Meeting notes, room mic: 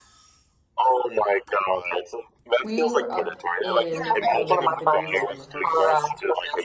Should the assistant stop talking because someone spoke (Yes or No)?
Yes